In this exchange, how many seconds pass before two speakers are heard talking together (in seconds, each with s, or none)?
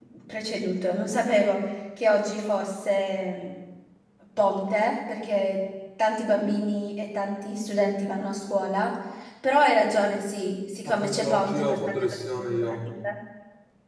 10.8 s